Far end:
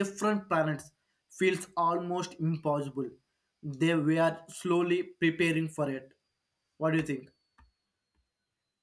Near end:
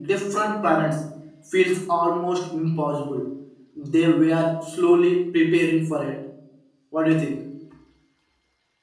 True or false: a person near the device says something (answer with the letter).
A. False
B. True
A